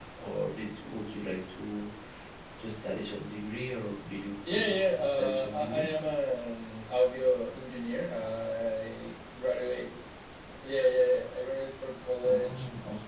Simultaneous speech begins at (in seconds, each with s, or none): 4.5 s